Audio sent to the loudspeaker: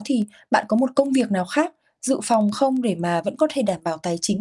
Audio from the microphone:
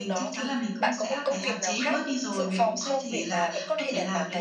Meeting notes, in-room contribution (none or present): present